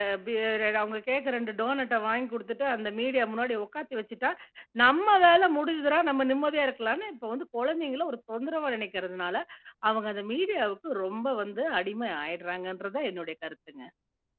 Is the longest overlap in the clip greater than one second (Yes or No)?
No